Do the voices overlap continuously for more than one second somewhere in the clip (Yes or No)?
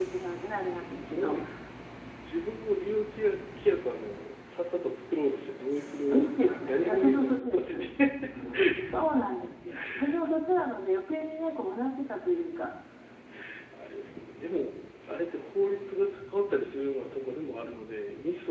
Yes